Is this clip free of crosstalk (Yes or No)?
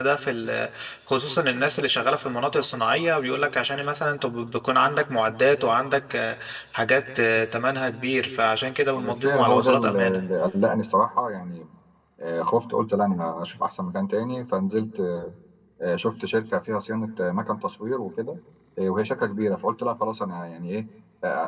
No